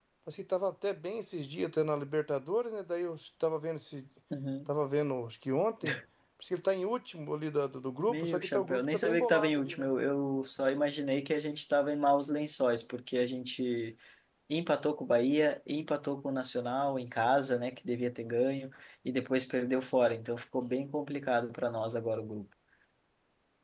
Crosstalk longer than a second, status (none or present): present